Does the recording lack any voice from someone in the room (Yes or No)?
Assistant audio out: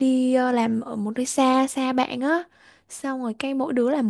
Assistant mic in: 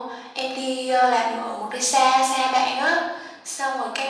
Yes